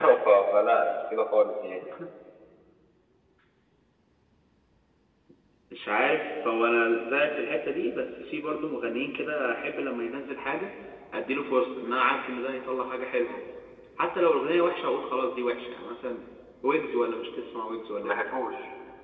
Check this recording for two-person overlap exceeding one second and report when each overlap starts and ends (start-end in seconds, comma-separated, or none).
none